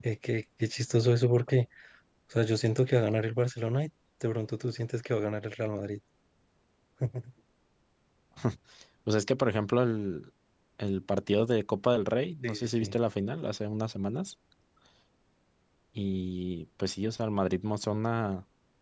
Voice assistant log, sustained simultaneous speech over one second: none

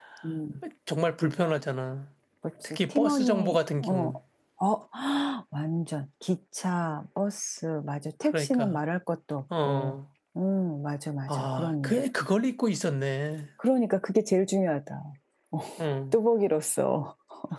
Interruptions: present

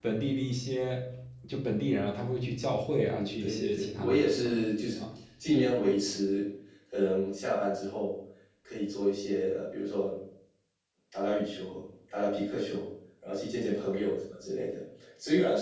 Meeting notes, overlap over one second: present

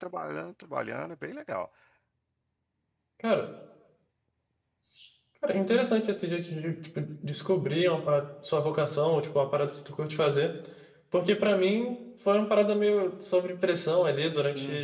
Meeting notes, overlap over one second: none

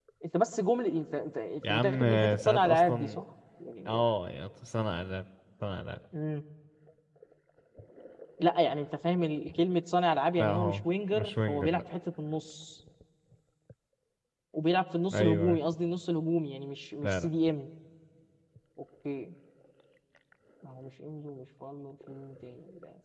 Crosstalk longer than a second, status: present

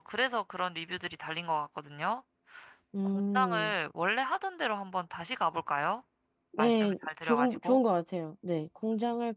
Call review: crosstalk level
present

